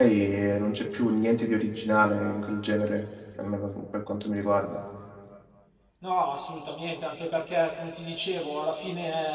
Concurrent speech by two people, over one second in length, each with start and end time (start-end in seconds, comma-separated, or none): none